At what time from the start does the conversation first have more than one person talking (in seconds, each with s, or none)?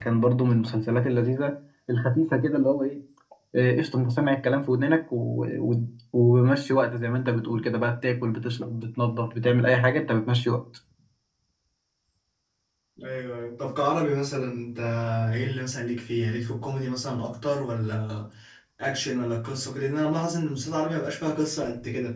none